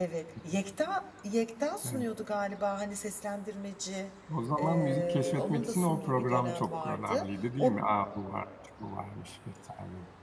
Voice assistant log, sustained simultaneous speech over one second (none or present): present